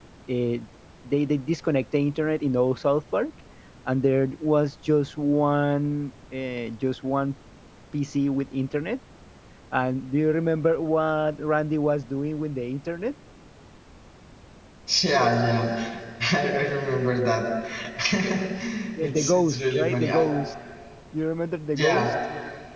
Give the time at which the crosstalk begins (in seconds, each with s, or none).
19.0 s